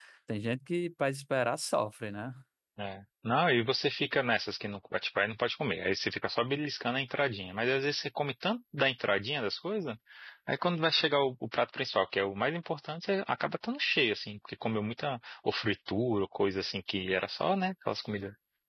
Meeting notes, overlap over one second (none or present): none